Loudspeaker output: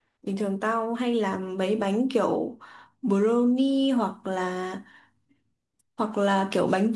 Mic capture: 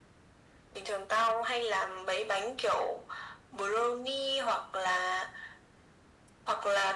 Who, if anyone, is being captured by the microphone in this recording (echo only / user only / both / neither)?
echo only